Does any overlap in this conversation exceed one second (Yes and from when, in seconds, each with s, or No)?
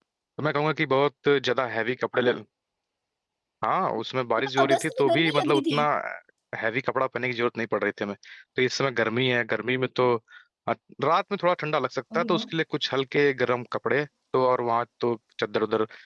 Yes, from 4.4 s